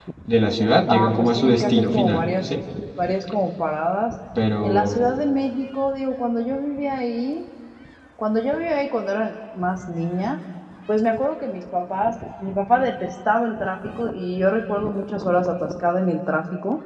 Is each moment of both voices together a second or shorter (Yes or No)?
No